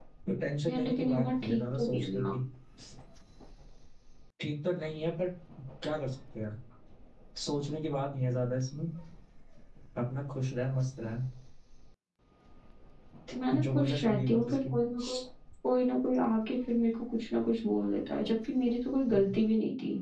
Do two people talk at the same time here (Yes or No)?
Yes